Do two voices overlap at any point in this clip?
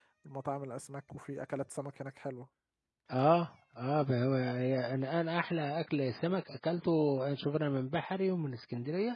No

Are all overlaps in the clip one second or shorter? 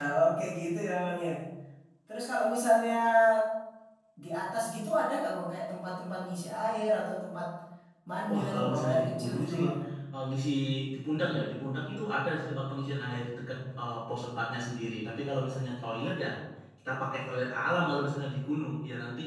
No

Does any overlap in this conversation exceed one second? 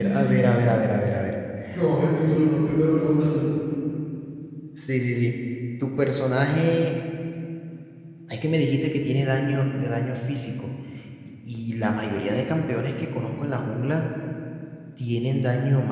No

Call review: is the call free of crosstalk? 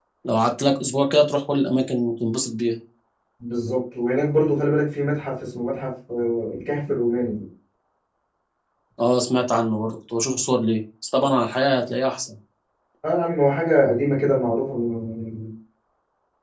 Yes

